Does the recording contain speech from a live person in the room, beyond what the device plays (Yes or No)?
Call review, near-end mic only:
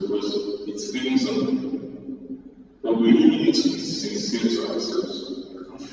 No